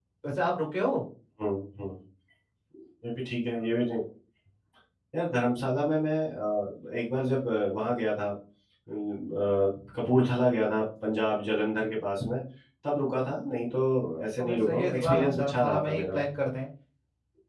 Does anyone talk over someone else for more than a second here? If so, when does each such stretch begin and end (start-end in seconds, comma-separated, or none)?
14.4-16.1